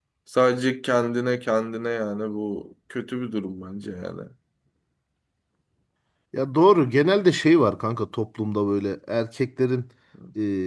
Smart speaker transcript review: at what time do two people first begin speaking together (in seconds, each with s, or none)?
none